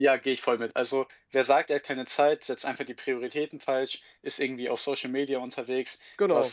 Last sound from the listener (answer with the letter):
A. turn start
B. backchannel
B